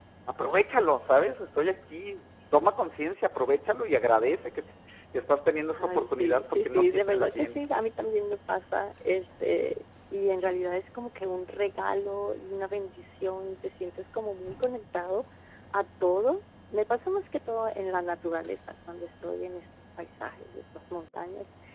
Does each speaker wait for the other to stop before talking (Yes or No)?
No